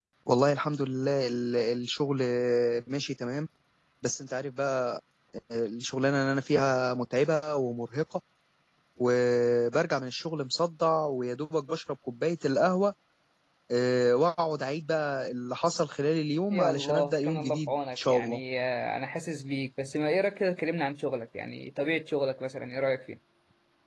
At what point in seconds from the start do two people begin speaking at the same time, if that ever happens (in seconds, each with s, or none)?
16.5 s